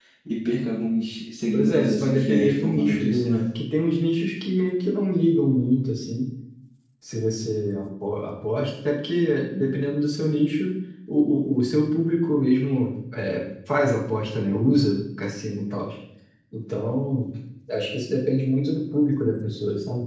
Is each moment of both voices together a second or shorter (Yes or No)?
No